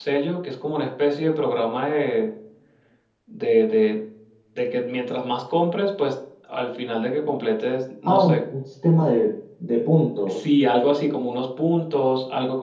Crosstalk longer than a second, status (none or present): none